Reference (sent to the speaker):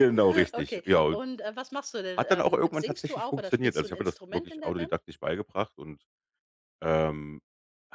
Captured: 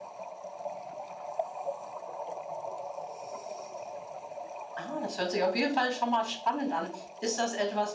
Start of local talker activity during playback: 4.8 s

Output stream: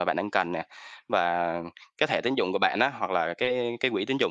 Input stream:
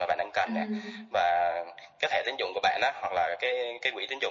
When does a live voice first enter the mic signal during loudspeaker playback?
0.5 s

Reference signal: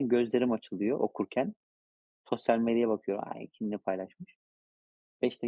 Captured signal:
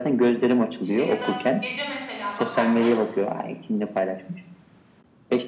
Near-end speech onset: 0.8 s

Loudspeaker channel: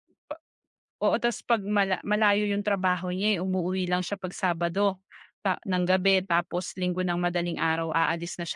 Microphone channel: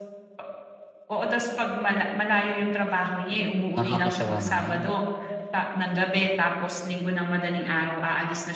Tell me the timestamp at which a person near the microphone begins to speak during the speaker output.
3.8 s

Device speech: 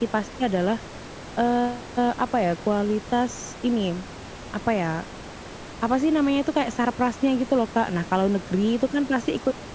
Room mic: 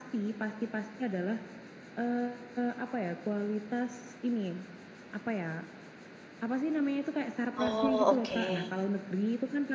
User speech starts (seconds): 7.6 s

